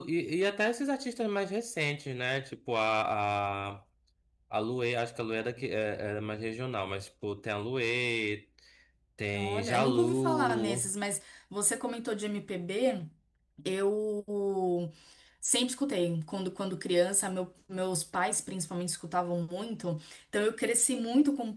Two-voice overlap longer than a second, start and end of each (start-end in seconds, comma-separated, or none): 9.3-10.9